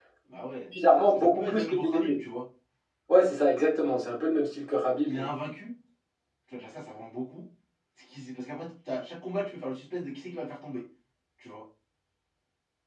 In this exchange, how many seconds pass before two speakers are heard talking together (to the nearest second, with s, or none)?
1 s